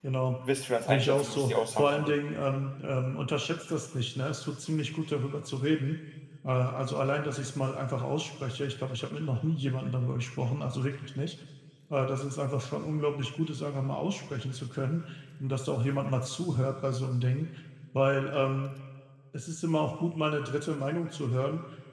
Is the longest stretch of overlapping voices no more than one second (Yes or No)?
No